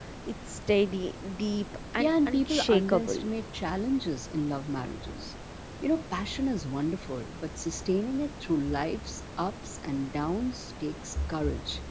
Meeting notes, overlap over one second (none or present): present